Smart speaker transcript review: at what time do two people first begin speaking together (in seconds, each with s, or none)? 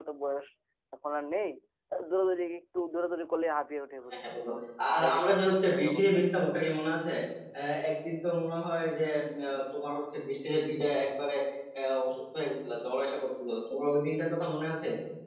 5.0 s